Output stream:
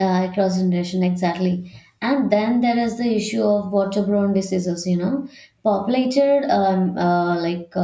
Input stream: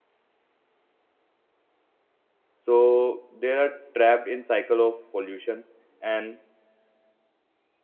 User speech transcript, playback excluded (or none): So they are trapped in cycle of pollution and